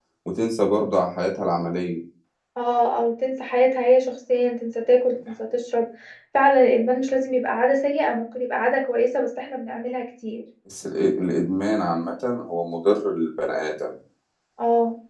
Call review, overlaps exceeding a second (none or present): none